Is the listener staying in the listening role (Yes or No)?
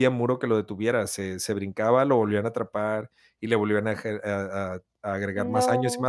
Yes